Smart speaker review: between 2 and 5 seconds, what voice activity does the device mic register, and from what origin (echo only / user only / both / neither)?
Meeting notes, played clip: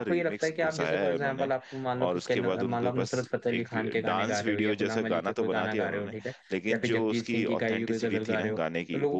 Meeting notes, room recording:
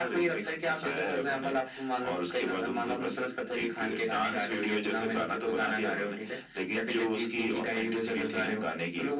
echo only